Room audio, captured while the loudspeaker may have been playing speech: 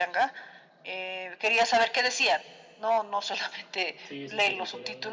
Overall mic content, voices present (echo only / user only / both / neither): both